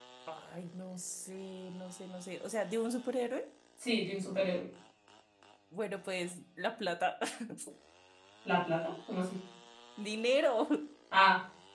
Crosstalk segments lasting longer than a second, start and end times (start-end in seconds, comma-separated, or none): none